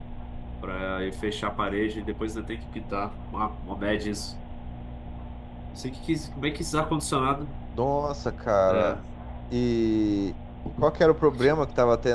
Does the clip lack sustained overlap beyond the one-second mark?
Yes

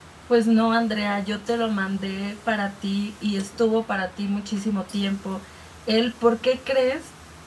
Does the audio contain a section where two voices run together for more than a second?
No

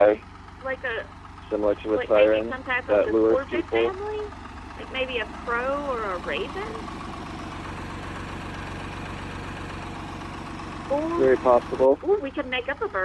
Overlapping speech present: Yes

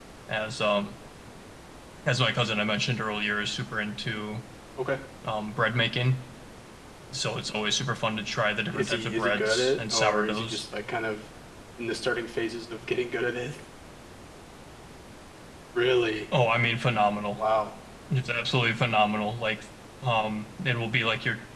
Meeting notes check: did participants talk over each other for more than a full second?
Yes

